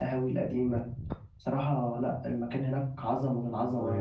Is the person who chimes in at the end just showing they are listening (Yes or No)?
No